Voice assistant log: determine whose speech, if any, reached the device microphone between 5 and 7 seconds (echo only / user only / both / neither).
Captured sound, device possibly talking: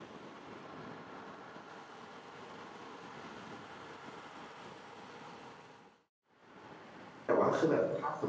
neither